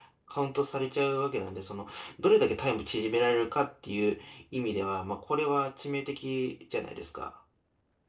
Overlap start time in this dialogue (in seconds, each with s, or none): none